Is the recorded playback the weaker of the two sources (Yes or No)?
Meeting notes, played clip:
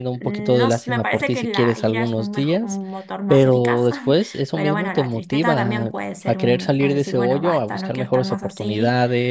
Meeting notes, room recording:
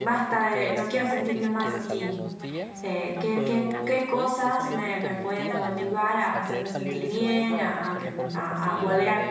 Yes